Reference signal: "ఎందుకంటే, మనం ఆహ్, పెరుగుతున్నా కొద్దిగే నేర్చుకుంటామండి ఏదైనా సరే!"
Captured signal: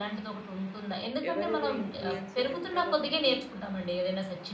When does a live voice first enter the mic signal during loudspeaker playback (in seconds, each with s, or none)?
1.3 s